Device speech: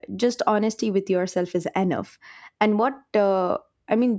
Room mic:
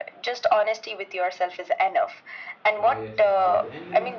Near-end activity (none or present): present